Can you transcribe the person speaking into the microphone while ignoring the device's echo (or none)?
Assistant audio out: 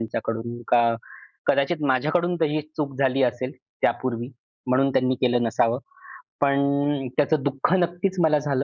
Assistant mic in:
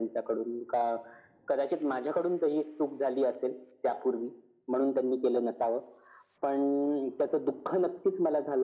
none